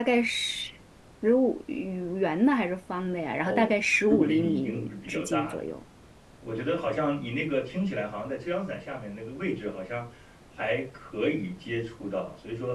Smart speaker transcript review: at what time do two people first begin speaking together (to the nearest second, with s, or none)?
3 s